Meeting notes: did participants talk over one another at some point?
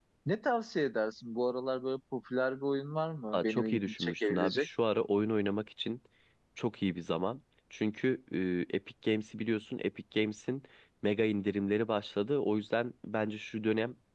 Yes, from 3.3 s

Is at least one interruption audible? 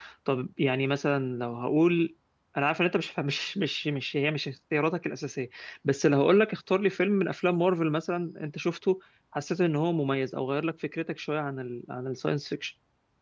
No

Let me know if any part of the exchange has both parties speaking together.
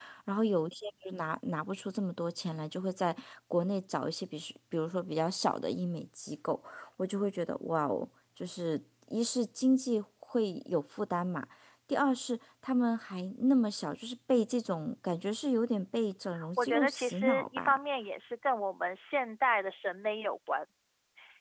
Yes, from 16.4 s

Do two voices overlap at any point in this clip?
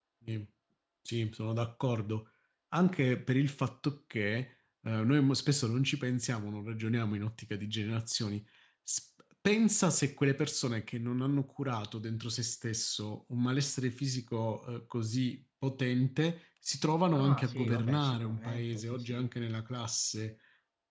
Yes, from 17.1 s

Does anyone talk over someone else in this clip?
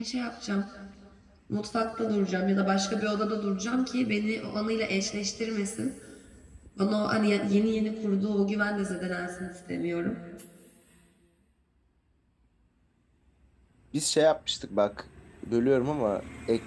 No

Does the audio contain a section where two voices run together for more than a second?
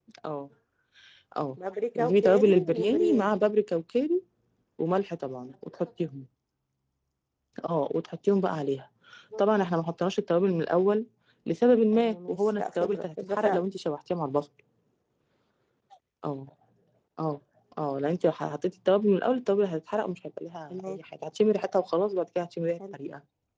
Yes, from 1.9 s

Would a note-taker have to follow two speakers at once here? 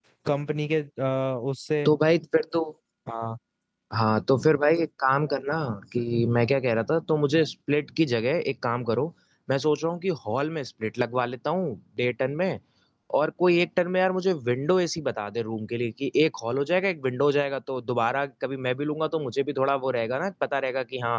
No

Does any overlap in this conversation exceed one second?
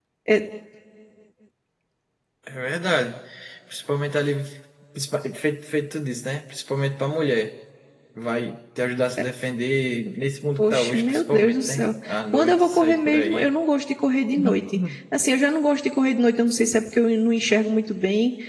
Yes, from 10.6 s

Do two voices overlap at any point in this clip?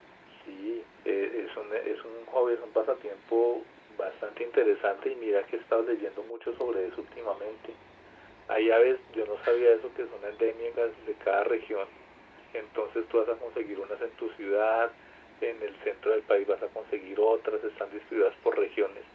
No

